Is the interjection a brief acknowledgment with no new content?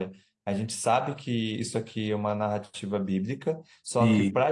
Yes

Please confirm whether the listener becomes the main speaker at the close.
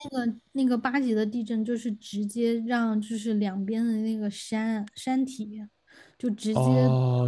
Yes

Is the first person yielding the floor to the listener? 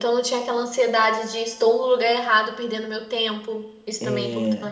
Yes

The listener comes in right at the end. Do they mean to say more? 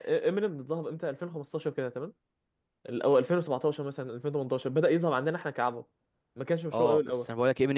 Yes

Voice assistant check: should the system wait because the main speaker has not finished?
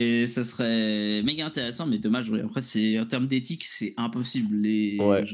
No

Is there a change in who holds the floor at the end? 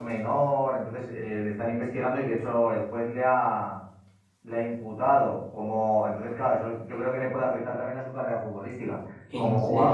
No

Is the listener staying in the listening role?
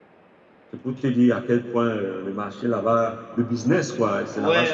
No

